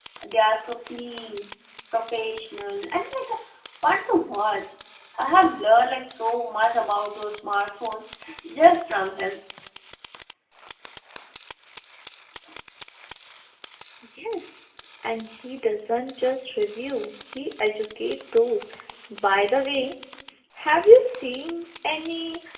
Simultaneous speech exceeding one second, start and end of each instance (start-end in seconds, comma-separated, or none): none